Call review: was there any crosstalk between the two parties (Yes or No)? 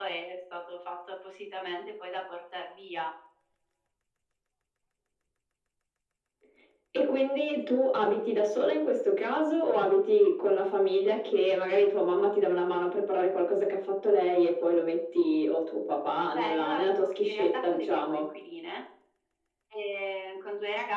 Yes